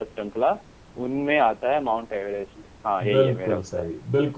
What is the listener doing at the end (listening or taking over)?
taking over